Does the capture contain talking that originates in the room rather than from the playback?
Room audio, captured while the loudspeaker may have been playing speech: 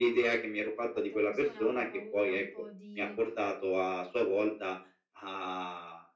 Yes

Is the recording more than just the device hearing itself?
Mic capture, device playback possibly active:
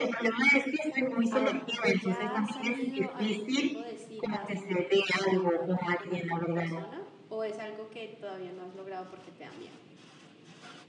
Yes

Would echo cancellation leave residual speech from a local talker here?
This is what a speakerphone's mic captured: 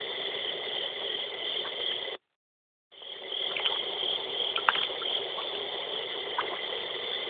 No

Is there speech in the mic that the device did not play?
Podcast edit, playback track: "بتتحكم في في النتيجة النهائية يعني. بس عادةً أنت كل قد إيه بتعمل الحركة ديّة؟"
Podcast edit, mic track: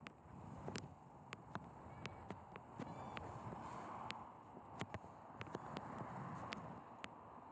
No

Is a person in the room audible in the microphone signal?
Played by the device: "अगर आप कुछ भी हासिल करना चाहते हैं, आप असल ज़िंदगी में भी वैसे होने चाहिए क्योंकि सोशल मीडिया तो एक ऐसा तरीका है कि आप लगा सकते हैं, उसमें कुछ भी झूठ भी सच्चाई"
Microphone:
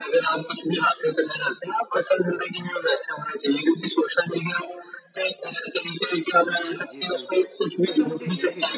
Yes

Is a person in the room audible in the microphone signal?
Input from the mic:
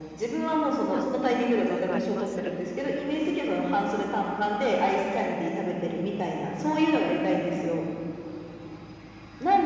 Yes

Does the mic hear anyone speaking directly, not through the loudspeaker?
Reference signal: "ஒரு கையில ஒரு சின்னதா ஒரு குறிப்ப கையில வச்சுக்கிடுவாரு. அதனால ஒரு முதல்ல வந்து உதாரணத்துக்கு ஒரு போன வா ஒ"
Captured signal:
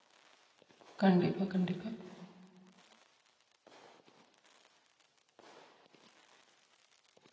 Yes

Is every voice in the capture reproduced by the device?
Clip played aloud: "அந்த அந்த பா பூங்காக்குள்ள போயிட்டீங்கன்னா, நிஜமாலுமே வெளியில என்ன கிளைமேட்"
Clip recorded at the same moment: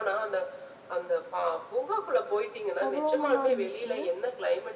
No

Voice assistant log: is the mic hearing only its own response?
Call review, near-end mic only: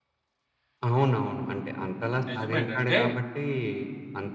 No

